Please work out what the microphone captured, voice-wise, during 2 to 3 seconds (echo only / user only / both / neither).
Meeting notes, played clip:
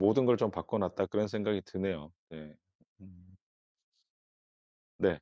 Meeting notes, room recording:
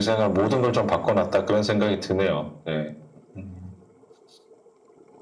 echo only